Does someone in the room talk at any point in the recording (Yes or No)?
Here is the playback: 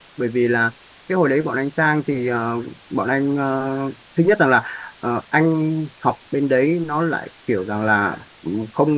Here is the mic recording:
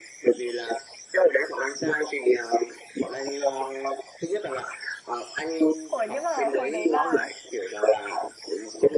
Yes